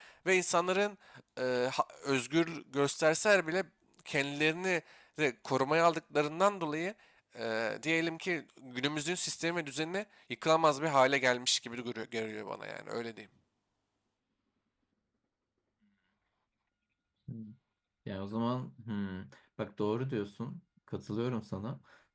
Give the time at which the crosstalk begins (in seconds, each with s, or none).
none